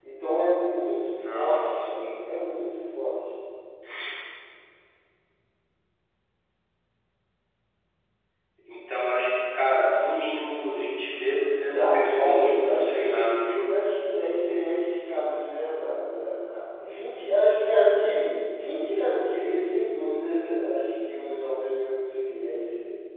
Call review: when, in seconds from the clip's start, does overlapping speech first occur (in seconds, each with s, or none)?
1.2 s